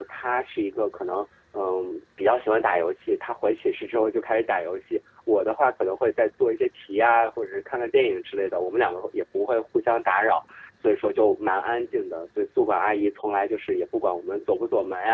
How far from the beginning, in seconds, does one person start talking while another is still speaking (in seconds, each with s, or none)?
none